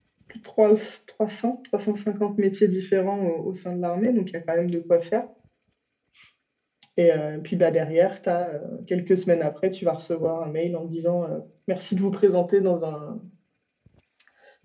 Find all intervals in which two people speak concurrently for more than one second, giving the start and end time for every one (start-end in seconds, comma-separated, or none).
none